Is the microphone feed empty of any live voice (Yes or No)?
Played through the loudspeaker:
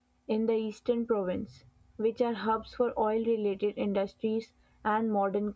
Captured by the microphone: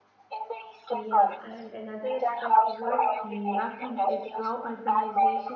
No